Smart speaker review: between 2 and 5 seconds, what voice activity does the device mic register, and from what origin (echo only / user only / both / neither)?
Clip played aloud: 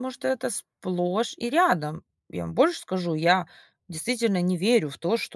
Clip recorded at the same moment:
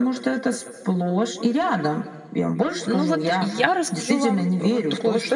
both